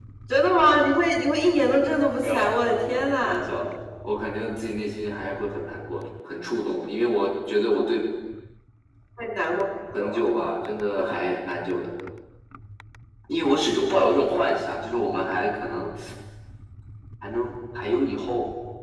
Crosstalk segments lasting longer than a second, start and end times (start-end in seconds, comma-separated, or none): 2.2-3.5